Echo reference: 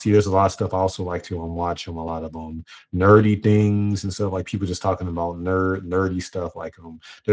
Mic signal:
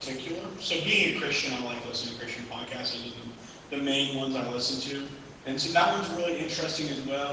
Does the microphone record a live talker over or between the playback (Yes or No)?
Yes